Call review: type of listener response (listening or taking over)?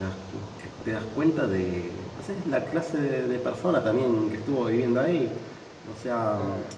listening